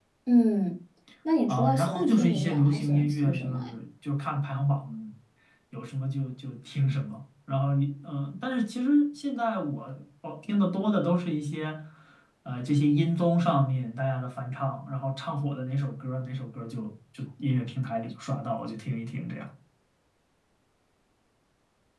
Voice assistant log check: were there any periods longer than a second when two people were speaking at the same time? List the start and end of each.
1.5-3.7

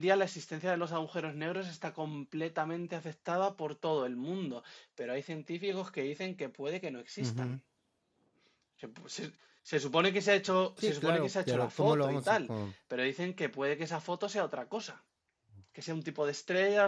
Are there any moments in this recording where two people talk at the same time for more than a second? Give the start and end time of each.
10.8-12.4

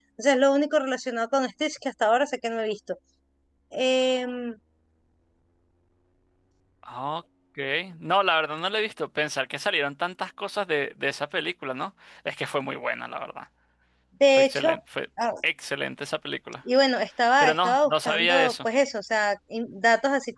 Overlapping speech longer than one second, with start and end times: 17.4-18.7

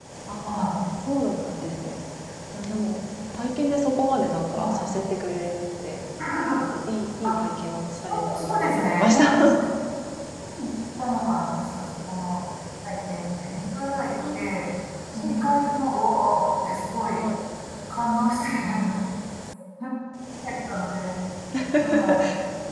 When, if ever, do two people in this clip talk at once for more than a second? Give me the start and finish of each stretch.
8.1-9.5

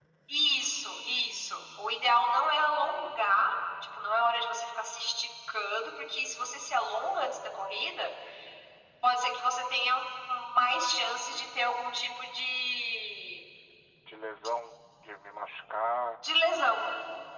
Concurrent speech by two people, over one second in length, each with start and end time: none

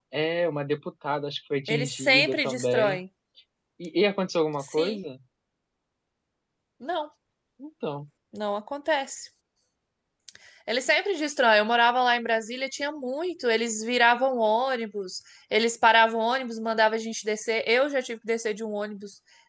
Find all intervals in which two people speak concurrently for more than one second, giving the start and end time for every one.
1.7-3.0

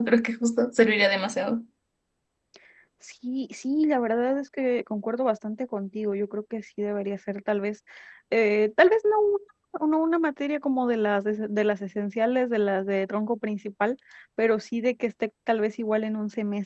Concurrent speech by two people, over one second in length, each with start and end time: none

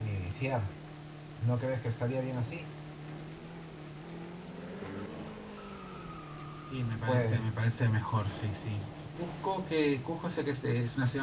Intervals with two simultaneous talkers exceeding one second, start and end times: none

